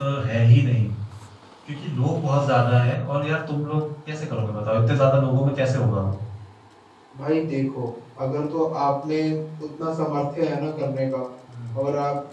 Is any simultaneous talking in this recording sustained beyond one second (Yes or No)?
No